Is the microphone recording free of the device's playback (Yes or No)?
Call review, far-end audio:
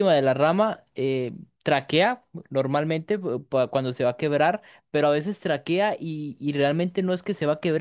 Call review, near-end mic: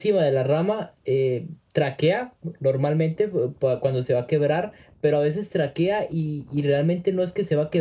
No